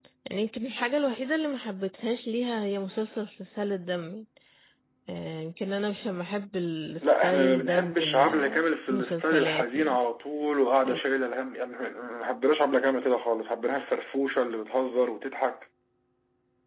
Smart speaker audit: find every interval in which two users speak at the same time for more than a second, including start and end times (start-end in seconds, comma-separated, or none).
7.0-10.0